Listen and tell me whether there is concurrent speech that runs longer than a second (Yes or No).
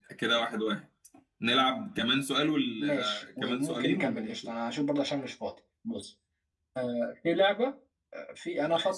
Yes